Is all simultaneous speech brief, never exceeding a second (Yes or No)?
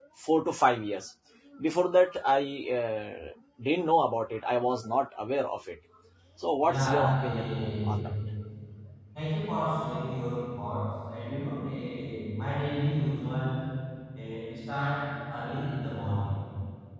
No